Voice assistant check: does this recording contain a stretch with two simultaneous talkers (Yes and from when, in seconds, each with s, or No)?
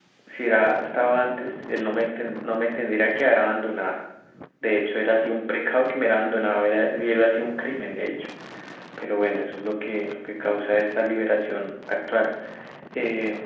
No